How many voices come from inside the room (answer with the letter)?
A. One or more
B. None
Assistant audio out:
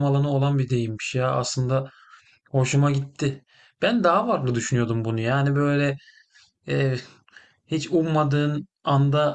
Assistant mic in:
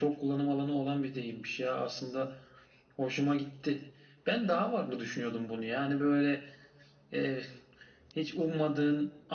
B